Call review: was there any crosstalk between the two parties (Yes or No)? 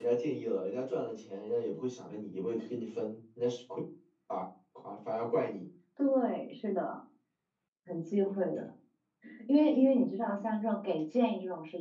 No